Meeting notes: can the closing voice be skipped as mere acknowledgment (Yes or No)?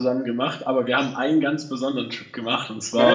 No